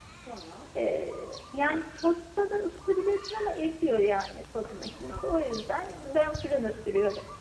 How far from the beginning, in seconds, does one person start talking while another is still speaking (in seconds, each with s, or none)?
4.7 s